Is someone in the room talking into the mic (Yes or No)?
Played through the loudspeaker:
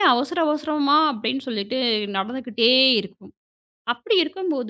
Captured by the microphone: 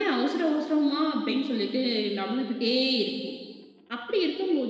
No